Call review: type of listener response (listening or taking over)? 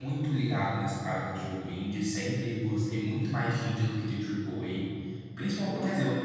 listening